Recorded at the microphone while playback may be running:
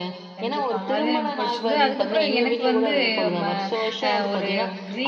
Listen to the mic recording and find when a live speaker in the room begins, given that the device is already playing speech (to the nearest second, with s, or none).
0 s